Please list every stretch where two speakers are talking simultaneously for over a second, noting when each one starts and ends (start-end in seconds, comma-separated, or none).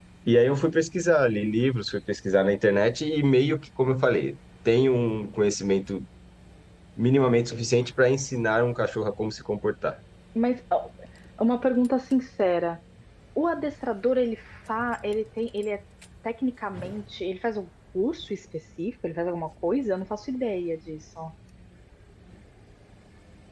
none